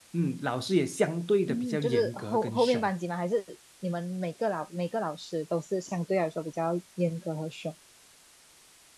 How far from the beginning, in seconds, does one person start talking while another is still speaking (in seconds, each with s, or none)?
1.5 s